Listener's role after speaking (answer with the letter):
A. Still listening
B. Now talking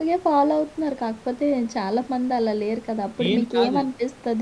A